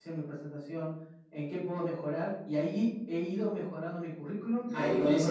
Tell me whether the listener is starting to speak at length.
Yes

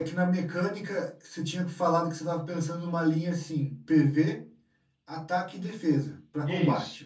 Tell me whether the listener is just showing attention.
No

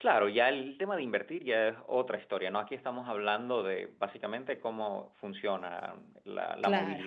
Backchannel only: Yes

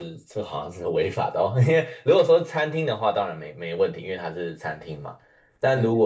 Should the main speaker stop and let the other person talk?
No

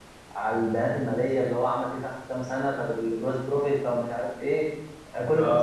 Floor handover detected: Yes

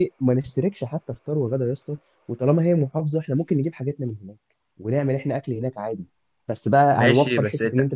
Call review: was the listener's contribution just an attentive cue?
No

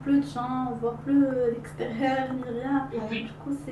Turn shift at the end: No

